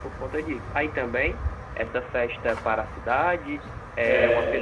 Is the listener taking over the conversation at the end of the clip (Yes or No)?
No